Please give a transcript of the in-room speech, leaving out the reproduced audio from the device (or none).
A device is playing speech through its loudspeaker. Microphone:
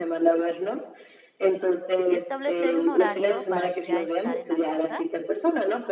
establecer un horario para ya estar en la casa.